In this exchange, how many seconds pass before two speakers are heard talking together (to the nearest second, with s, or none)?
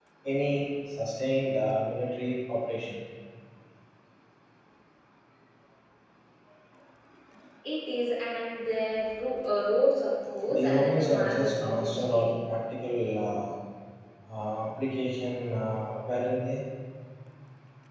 10 s